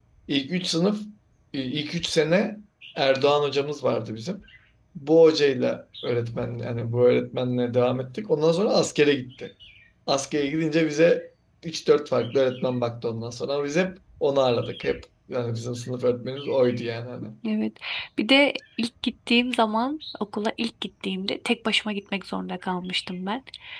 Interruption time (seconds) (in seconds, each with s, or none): none